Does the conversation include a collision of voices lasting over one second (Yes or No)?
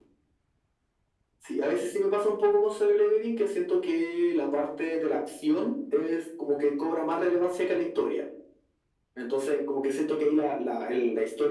No